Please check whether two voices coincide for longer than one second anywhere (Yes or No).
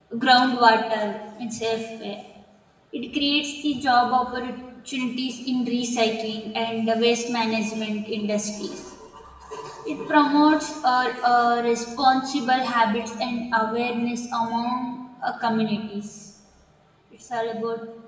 No